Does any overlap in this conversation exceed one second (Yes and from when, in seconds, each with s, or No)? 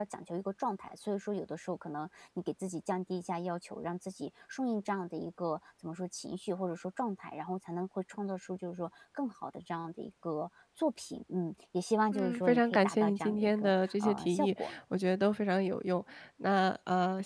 Yes, from 12.1 s